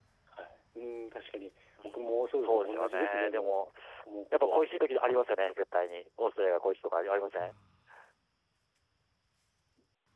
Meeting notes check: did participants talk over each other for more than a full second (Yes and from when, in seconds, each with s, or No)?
Yes, from 2.0 s